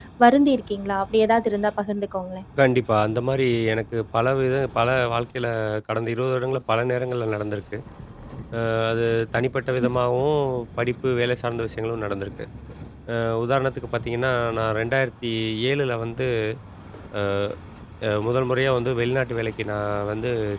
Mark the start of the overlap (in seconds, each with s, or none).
none